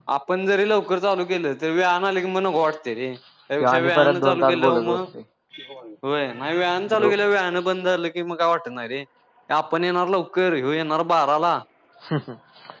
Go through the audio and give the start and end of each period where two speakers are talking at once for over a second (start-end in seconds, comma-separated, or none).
3.6-5.1